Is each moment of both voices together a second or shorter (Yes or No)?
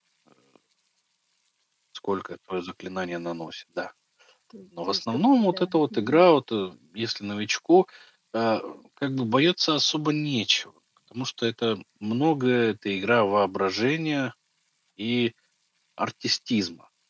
No